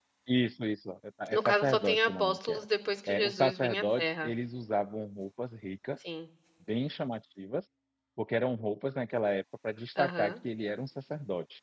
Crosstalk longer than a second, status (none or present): present